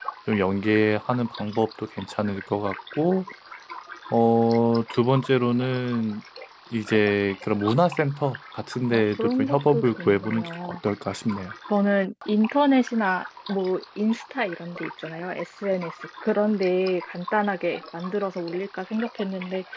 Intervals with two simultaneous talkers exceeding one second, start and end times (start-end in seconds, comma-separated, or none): 8.9-10.8